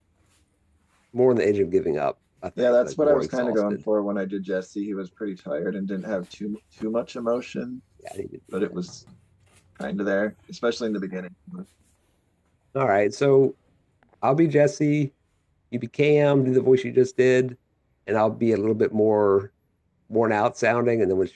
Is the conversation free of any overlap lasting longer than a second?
No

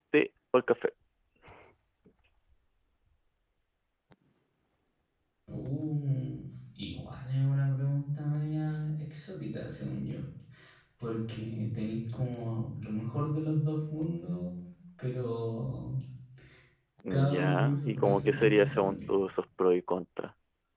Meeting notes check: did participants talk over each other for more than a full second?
Yes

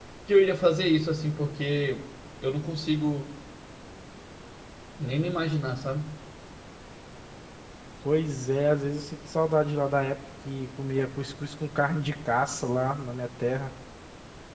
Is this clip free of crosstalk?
Yes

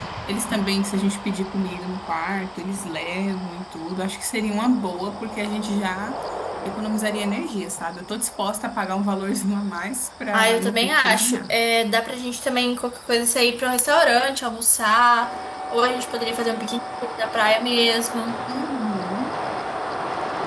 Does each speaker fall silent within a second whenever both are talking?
No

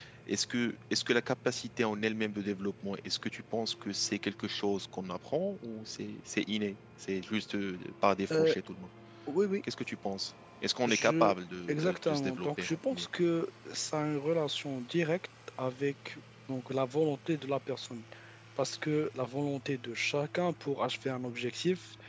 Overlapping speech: Yes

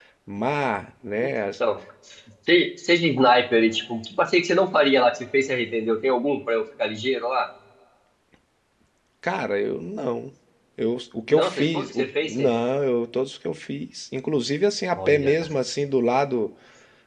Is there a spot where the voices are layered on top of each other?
Yes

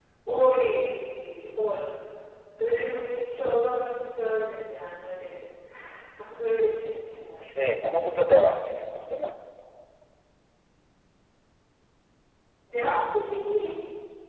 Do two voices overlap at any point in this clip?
No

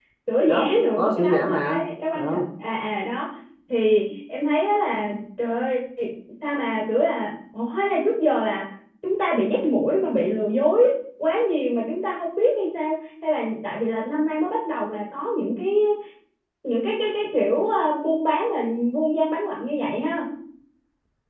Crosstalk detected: Yes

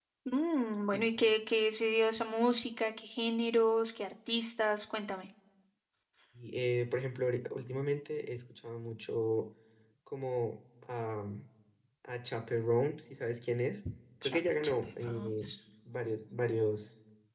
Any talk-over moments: Yes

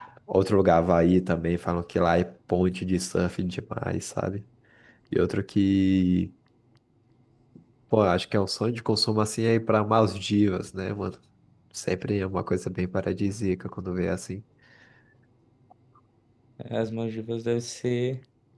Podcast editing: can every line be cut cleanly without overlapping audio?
Yes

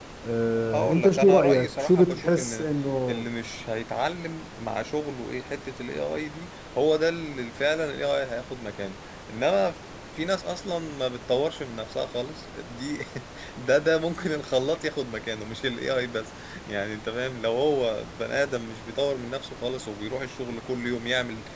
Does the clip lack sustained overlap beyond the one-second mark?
No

